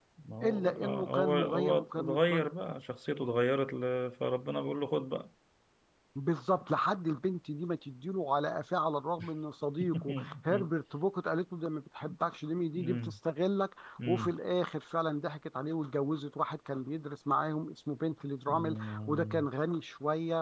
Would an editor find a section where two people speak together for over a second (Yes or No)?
Yes